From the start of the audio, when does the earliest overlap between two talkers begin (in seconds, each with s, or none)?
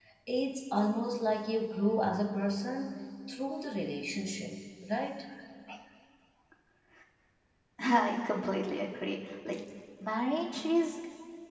none